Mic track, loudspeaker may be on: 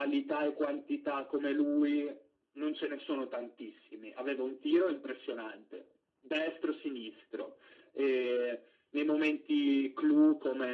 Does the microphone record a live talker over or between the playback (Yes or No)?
No